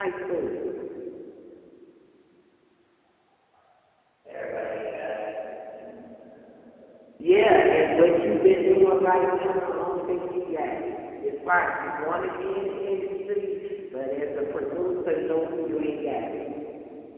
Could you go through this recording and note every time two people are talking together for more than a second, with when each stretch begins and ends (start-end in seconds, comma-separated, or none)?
none